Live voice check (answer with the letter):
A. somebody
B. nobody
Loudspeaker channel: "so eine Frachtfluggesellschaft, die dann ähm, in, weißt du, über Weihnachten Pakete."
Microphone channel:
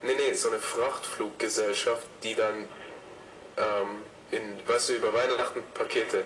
B